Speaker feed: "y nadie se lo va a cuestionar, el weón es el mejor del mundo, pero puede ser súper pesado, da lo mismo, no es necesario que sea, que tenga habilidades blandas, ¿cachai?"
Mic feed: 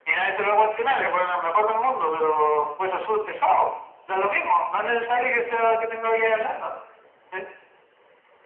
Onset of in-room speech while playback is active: none

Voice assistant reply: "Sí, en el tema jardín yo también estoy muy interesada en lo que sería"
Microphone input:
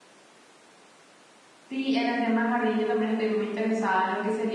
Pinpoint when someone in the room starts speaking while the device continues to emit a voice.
none

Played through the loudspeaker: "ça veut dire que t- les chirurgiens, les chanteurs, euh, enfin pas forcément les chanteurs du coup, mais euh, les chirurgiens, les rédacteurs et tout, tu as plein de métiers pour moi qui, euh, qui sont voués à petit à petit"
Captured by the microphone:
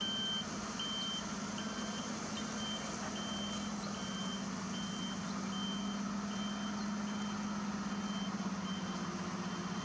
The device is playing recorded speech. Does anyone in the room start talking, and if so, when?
none

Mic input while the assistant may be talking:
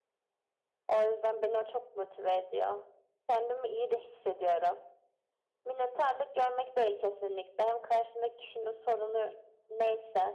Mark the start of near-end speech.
none

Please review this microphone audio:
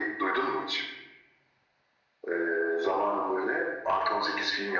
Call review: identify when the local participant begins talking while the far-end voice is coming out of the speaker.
none

